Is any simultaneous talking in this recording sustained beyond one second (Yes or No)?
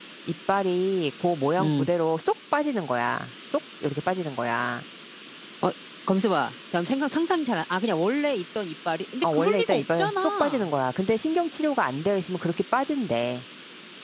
Yes